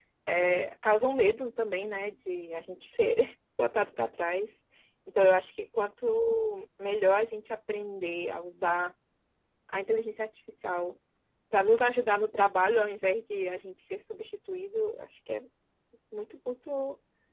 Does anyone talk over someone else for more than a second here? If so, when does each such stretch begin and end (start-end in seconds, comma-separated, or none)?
none